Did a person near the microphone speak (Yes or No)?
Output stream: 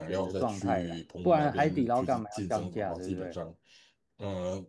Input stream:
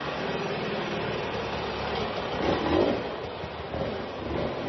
No